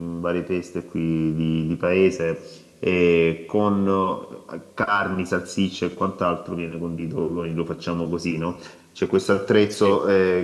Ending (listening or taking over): listening